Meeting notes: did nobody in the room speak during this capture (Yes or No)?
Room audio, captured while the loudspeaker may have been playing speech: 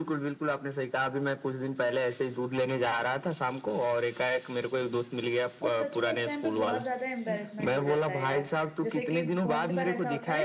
No